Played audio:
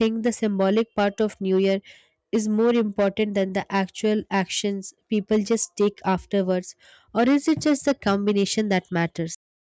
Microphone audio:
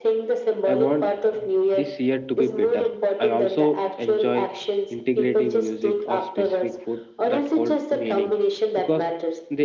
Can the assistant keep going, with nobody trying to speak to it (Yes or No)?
No